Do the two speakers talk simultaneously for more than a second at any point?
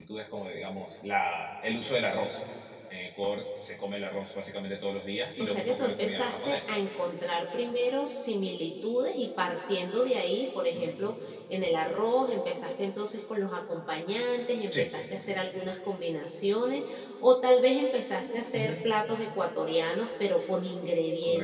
Yes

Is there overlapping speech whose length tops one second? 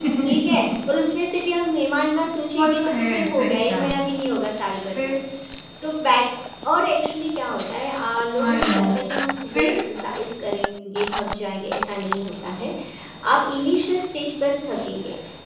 Yes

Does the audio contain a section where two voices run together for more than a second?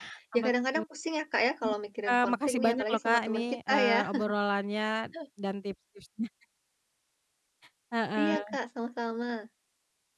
Yes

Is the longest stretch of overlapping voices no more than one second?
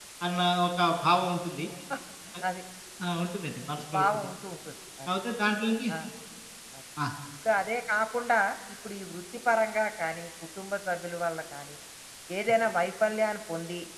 Yes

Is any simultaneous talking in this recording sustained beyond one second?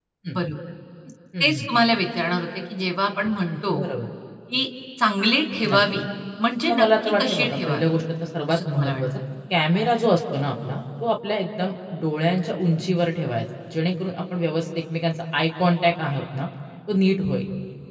Yes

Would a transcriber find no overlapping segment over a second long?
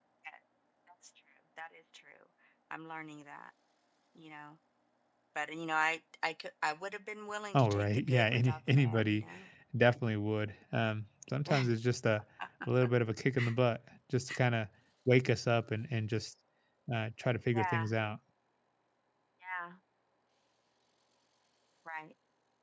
No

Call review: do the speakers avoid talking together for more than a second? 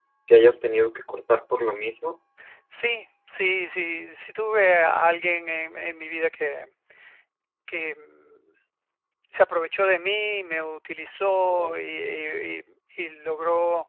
Yes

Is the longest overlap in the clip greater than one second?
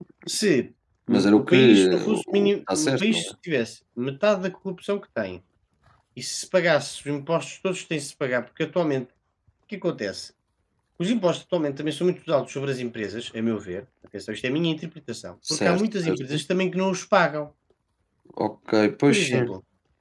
Yes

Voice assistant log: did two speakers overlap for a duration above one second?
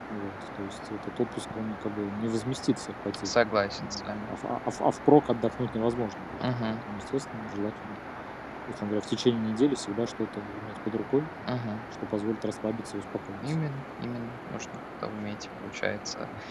No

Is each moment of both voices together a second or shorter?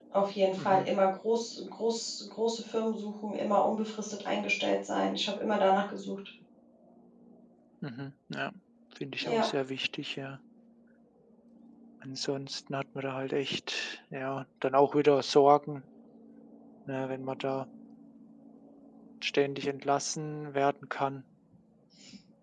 Yes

